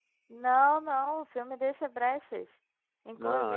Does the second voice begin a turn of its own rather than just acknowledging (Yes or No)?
No